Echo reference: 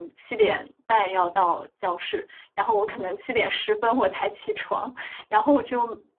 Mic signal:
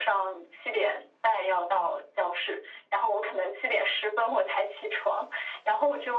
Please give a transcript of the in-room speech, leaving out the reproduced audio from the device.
none

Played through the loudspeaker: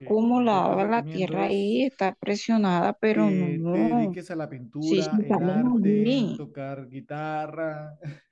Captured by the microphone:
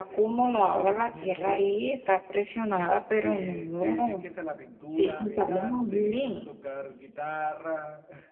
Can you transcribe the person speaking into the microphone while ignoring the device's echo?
none

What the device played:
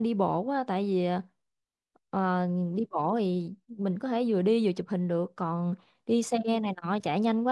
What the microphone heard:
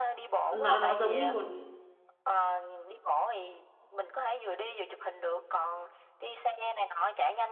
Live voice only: nó nó giống như một

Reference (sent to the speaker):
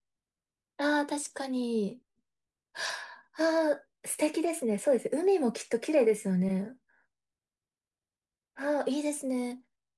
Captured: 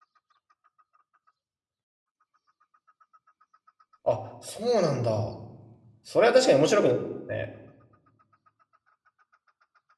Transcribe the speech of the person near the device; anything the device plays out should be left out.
あ、そうなんだ。それは確かに面白くなるですね。

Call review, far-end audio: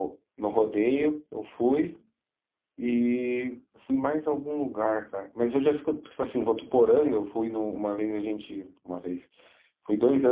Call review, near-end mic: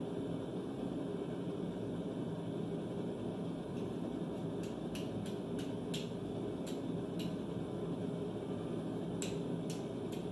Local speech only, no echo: none

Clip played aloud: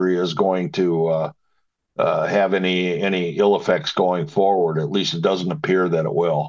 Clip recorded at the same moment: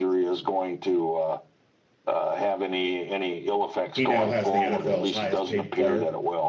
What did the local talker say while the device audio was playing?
He now has the NFL's highest paid player

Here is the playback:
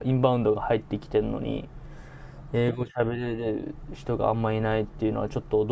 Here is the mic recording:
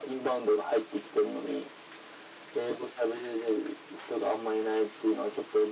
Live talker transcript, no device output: none

